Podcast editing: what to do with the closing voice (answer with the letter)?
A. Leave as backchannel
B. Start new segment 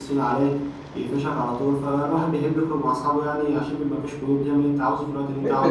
B